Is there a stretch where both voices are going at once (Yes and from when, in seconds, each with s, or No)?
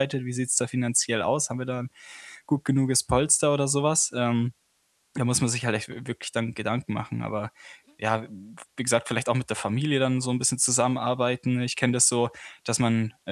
No